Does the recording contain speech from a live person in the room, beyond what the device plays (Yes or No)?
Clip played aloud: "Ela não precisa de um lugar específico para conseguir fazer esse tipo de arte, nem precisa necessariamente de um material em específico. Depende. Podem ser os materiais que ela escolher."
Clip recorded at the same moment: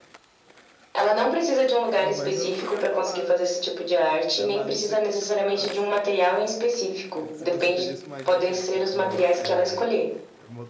Yes